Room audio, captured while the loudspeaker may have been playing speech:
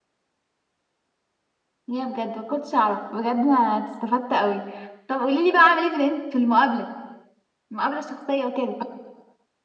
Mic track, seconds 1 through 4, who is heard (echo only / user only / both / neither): echo only